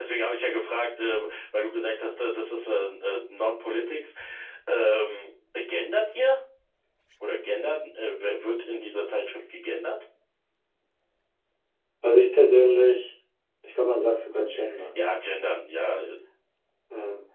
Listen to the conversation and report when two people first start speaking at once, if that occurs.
none

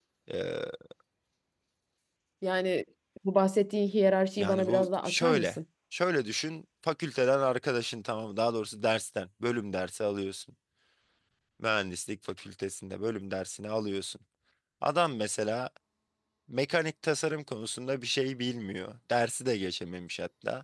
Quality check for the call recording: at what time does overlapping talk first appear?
4.4 s

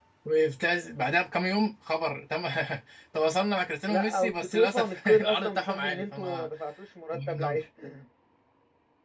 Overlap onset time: 3.9 s

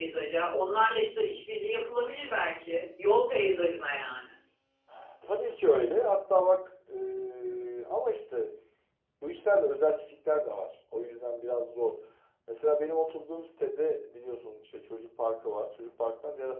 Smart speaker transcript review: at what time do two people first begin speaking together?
none

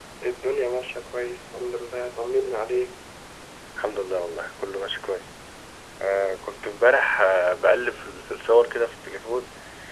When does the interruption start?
none

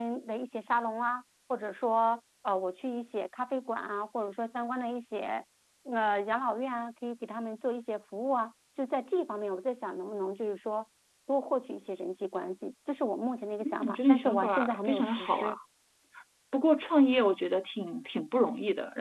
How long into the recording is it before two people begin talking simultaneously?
13.6 s

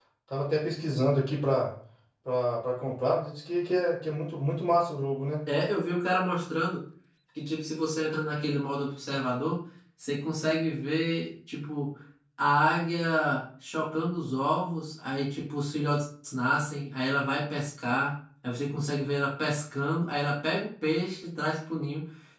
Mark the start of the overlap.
none

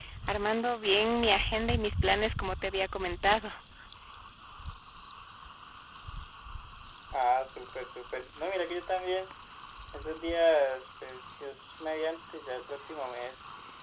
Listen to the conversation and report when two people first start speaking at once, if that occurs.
none

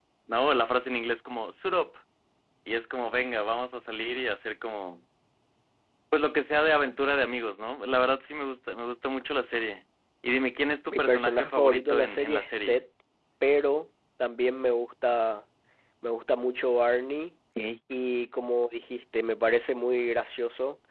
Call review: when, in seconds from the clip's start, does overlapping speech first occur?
10.9 s

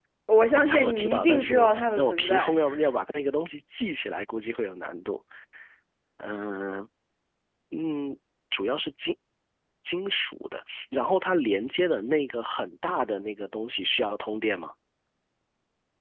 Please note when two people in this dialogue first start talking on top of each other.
0.5 s

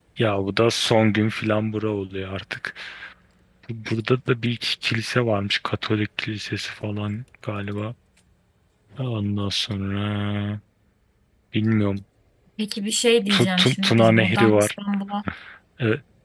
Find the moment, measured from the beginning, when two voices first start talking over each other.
13.3 s

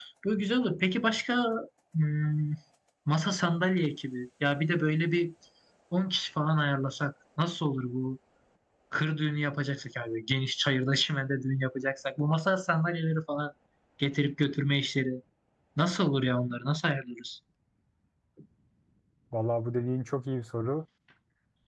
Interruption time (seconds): none

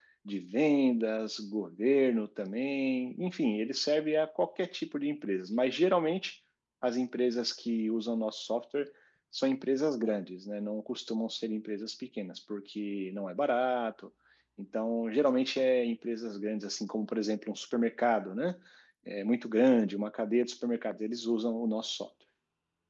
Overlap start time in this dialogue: none

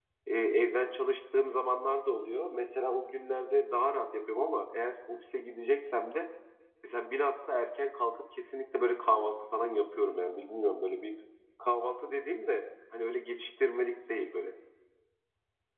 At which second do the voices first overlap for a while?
none

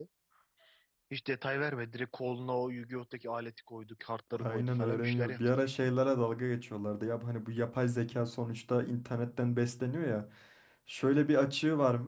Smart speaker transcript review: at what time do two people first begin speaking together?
4.3 s

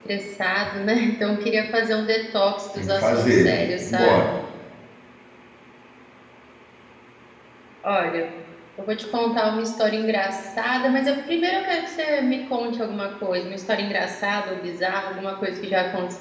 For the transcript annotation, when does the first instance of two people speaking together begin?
2.8 s

